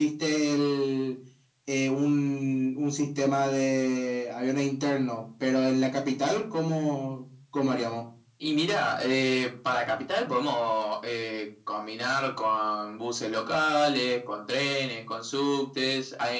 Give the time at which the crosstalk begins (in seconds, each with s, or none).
none